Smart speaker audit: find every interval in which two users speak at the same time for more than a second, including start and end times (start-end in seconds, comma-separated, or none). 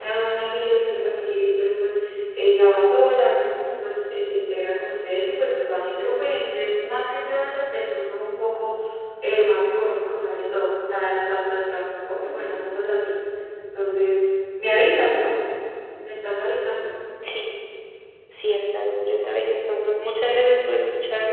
none